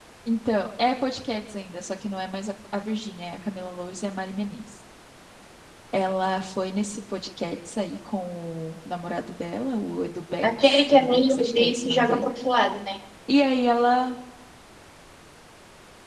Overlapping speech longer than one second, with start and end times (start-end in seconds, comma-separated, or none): 10.4-12.2